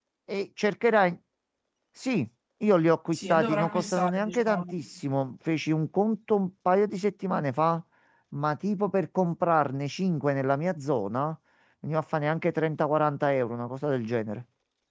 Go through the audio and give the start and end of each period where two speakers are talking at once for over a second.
3.1-4.7

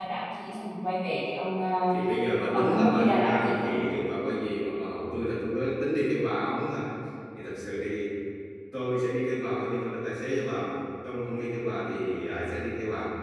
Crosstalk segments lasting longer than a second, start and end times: 2.5-3.7

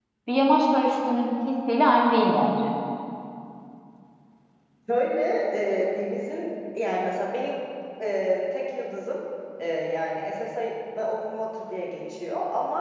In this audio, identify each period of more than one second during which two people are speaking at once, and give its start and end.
none

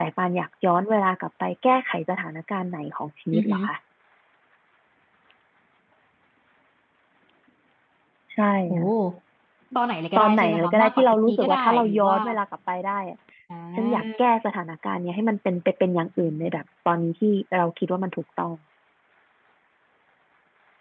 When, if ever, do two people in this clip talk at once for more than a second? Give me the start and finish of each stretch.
10.2-12.2

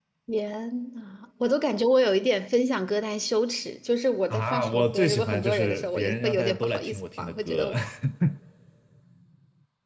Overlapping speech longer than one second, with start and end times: 4.3-7.7

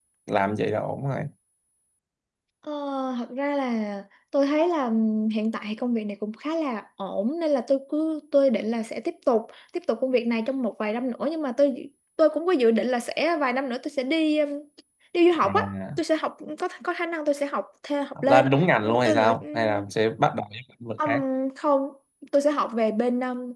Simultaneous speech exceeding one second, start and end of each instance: 18.2-19.8

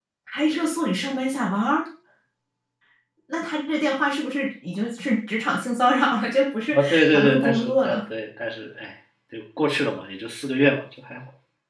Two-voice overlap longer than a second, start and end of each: 6.7-8.0

